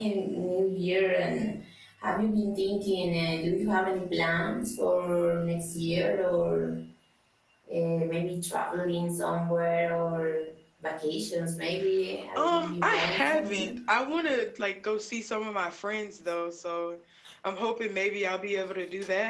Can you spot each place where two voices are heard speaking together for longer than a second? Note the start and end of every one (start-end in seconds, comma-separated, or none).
12.4-13.7